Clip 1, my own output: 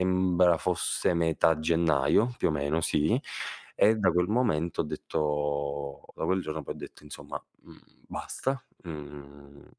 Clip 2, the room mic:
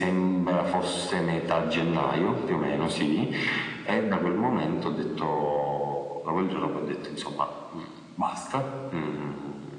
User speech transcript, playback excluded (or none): none